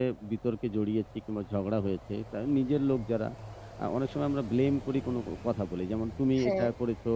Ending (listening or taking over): listening